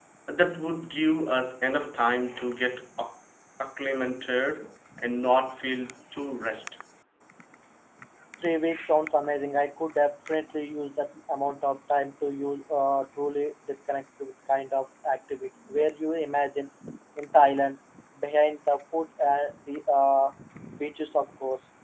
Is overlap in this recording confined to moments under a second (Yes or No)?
Yes